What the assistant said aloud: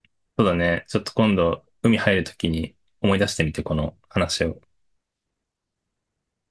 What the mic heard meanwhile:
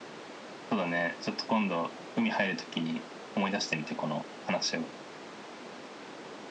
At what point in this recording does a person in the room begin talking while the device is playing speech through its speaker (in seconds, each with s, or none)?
none